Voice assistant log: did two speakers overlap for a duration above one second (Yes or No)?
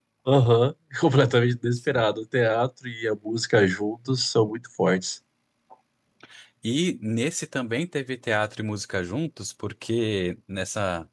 No